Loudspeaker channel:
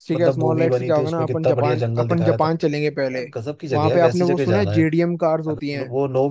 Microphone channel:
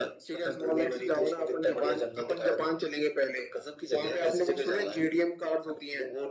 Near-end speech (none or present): none